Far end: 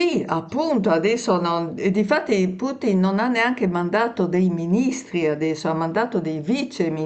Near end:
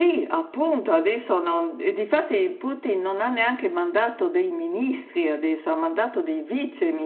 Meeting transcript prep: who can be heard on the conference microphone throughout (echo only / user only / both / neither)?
echo only